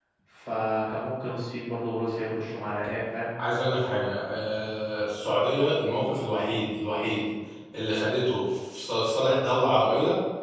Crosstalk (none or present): none